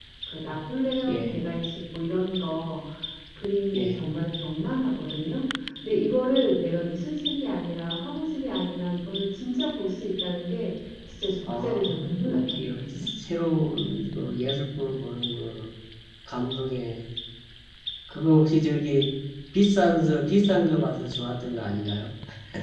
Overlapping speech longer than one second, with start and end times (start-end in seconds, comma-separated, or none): 11.5-12.8